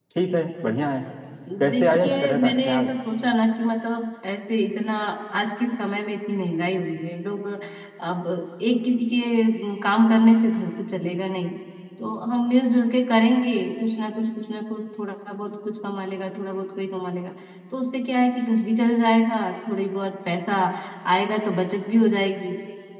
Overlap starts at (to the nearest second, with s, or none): 2 s